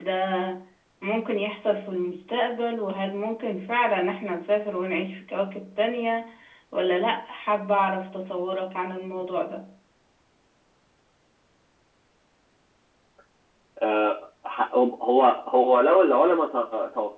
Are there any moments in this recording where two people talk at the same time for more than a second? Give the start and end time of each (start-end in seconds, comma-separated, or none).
none